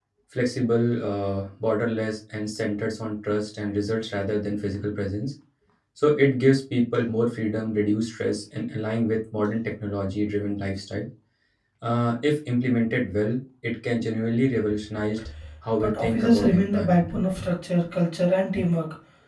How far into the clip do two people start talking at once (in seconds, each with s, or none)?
15.8 s